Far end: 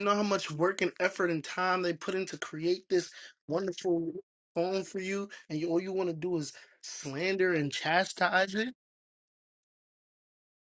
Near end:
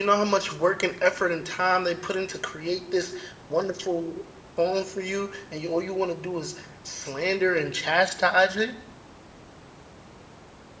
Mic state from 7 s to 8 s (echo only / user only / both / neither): echo only